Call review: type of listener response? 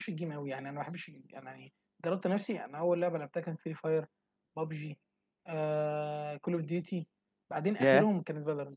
listening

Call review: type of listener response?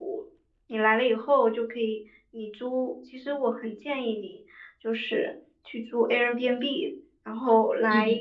listening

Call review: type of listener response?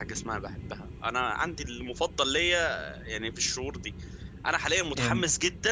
listening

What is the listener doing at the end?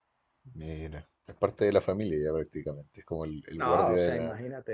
taking over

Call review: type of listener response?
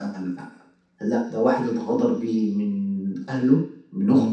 listening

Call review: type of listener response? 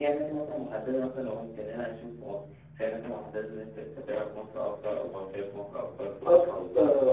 taking over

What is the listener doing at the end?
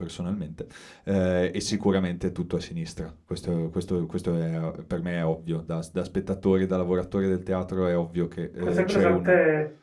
taking over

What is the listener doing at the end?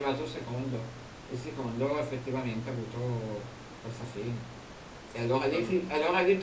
listening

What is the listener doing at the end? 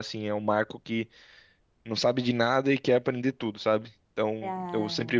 listening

